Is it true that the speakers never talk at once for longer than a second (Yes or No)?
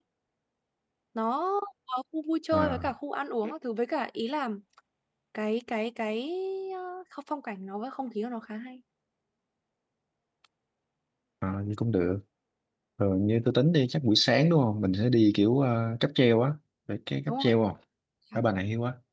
Yes